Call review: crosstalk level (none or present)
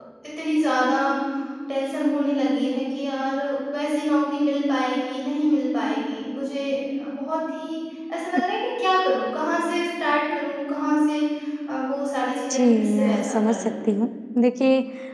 present